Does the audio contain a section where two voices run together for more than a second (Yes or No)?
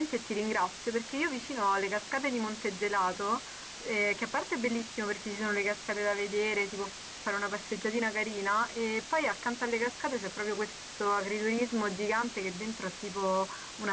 No